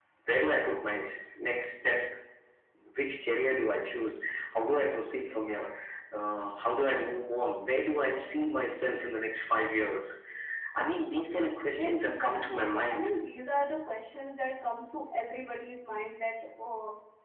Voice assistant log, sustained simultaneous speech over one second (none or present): present